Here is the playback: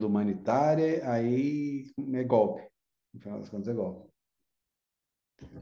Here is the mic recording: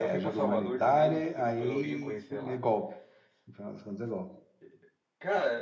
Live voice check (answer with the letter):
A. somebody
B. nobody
A